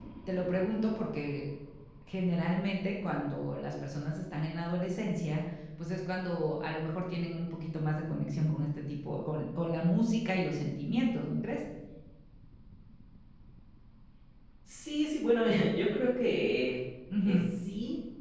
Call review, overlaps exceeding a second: none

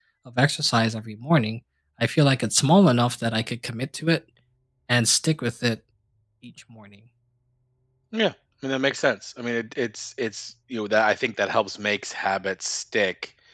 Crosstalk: none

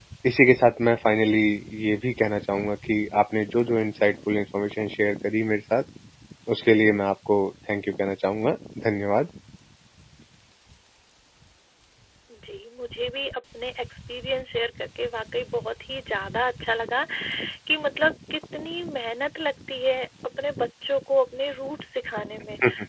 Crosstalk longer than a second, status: none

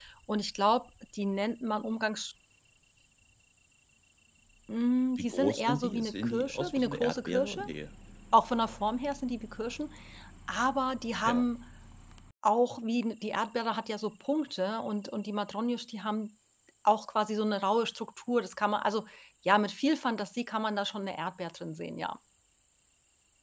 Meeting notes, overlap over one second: present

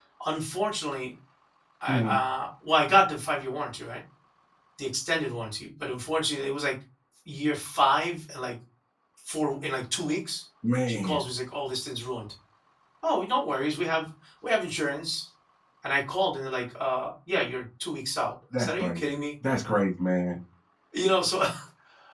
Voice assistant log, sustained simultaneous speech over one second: none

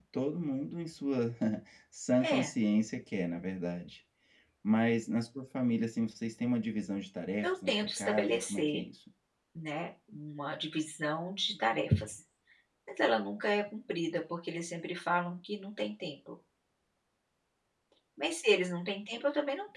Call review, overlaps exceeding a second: present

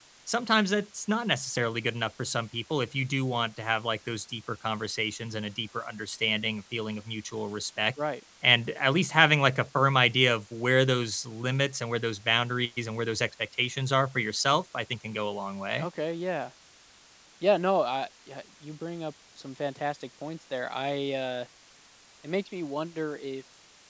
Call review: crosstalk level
none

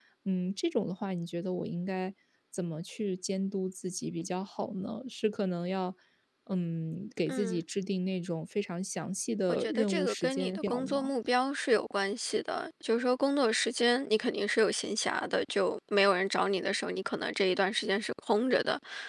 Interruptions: present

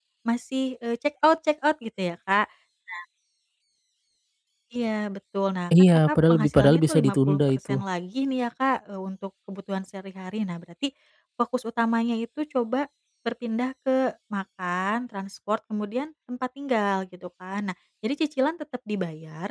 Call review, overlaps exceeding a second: present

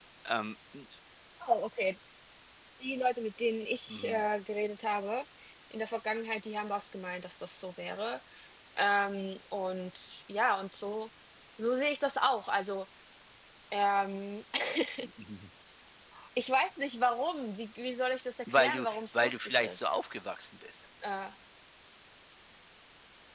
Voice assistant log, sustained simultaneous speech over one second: present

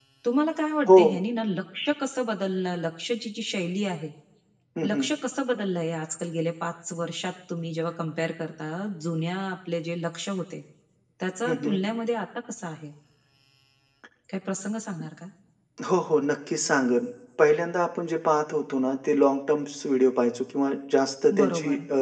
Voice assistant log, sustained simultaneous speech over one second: none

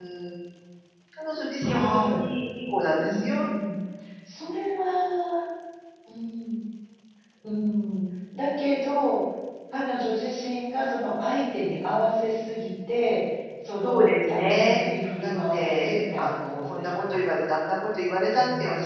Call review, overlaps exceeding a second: present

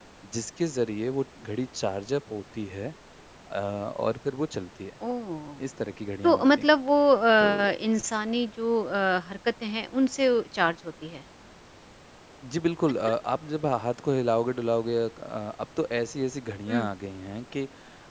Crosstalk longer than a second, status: none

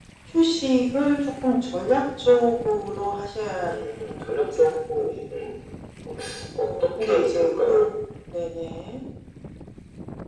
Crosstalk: present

